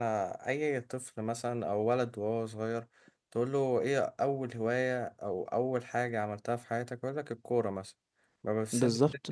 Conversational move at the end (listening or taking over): listening